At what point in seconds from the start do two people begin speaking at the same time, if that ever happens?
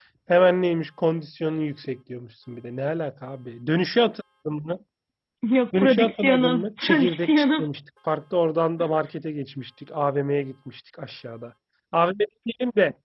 5.8 s

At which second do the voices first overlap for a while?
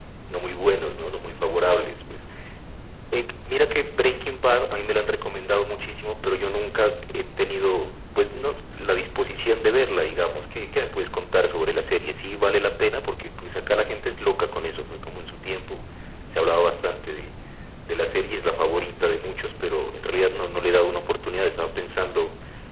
none

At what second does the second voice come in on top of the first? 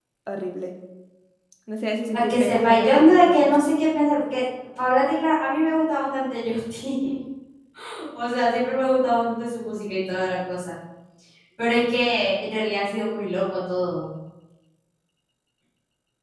2.1 s

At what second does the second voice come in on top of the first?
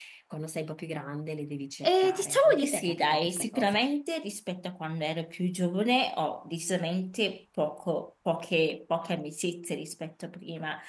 1.8 s

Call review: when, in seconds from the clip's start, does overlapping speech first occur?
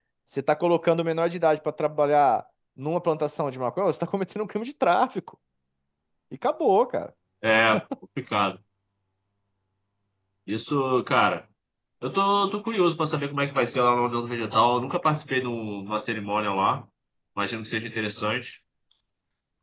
none

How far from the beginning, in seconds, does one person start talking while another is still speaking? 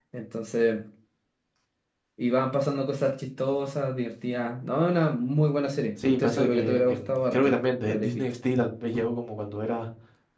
6.0 s

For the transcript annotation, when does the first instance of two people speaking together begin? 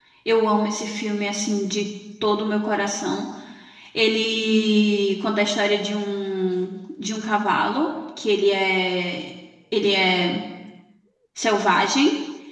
none

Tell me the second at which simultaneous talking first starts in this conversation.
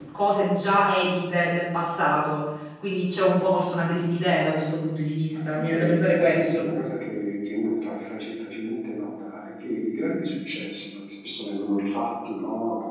5.3 s

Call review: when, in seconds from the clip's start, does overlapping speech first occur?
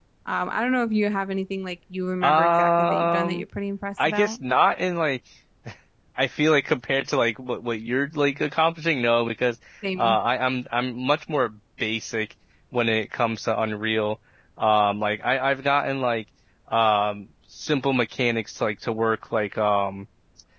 2.2 s

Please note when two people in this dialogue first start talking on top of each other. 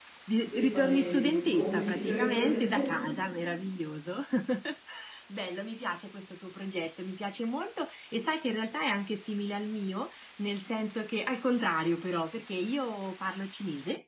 0.5 s

